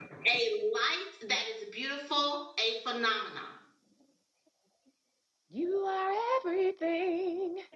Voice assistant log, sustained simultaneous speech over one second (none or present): none